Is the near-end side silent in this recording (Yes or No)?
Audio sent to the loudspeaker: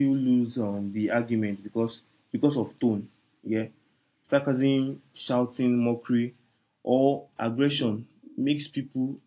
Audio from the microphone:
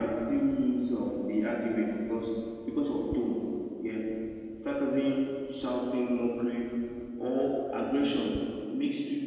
Yes